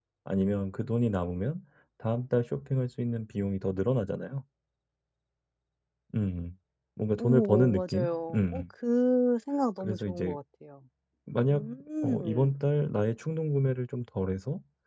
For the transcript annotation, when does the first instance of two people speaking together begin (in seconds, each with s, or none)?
7.2 s